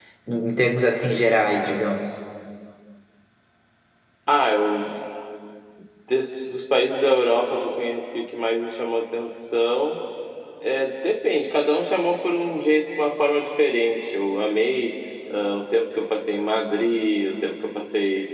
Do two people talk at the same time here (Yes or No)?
No